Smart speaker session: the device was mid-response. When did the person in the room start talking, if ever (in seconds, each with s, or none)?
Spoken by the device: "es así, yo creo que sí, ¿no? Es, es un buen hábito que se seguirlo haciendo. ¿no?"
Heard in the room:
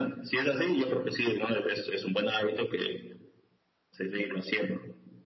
none